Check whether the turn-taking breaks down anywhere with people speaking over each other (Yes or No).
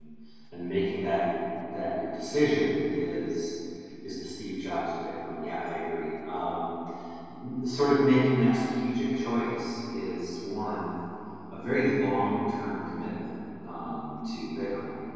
No